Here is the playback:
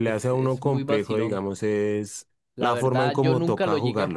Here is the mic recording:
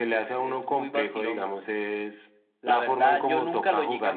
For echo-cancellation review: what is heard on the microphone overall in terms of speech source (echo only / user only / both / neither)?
echo only